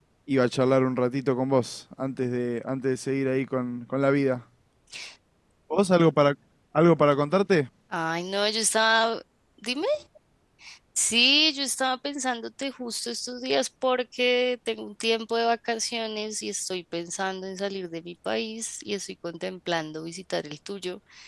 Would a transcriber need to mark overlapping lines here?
No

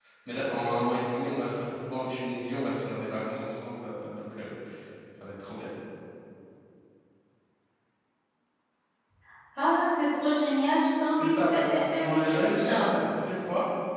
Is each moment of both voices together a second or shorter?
No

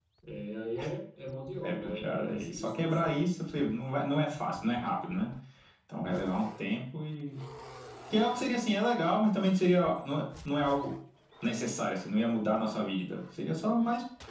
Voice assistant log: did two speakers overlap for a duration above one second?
Yes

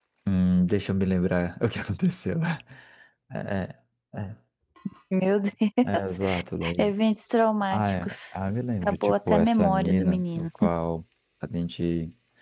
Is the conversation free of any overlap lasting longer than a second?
No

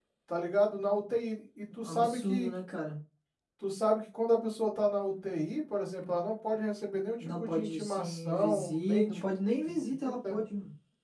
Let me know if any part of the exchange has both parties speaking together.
Yes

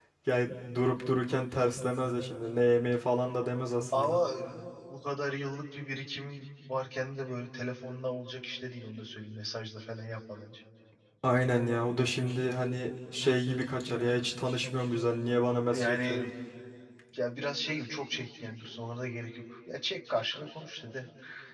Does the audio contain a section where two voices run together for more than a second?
No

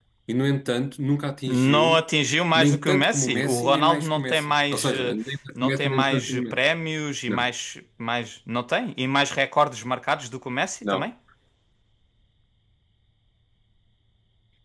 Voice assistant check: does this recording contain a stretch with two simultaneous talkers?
Yes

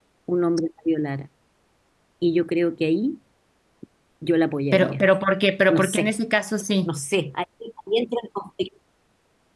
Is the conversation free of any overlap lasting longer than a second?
Yes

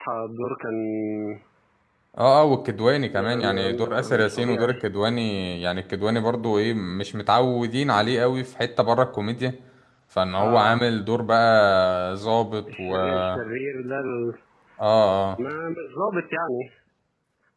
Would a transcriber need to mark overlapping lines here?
Yes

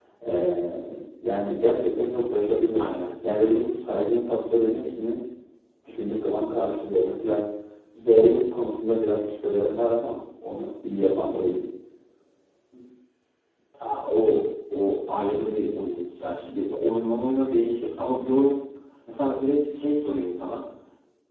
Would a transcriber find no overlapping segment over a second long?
Yes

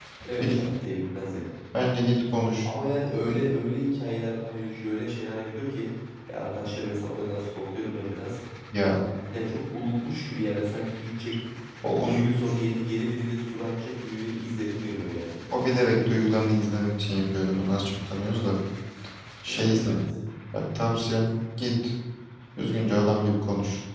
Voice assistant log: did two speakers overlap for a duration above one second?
No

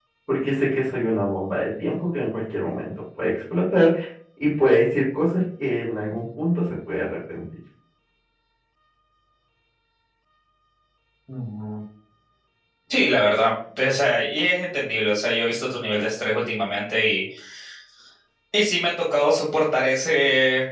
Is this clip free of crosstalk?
Yes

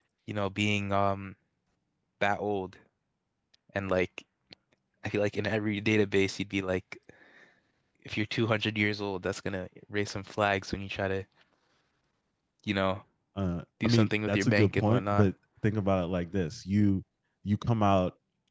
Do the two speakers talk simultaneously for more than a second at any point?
Yes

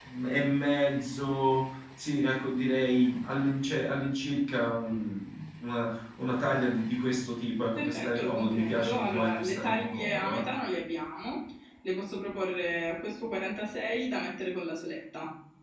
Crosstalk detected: Yes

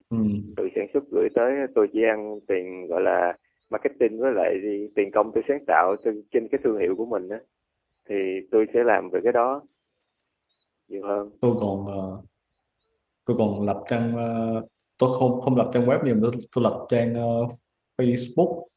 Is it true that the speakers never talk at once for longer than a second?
Yes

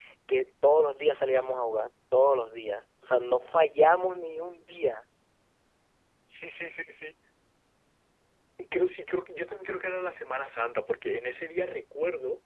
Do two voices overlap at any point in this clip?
No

